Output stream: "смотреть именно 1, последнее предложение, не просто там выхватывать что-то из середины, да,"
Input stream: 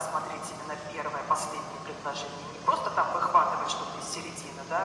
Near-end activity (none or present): none